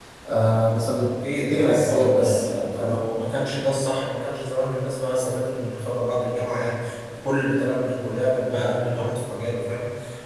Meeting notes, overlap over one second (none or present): present